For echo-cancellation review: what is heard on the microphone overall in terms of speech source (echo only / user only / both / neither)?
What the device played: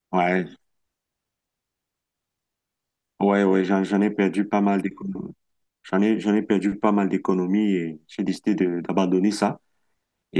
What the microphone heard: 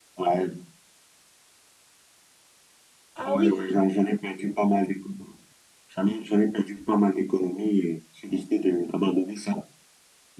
both